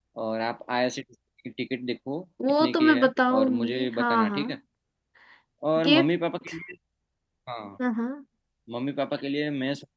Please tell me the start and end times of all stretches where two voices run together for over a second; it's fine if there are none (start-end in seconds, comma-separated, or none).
2.6-4.5